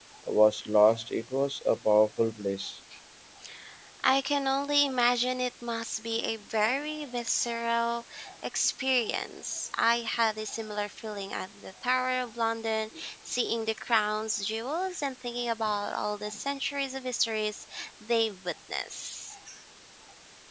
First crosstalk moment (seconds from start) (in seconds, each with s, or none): none